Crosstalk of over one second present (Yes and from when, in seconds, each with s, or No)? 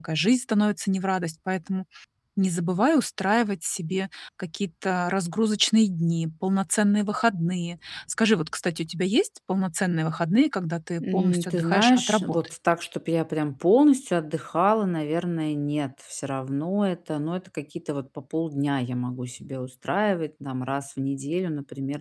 Yes, from 11.0 s